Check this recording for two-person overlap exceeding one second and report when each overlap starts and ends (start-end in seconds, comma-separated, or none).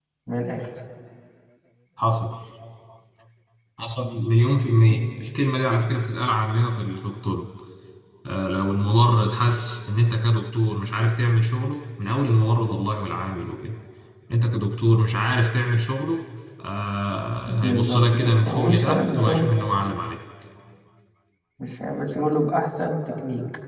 17.6-19.5